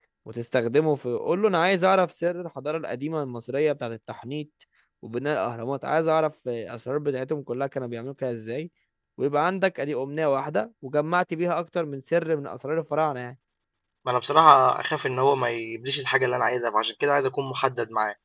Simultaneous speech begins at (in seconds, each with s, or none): none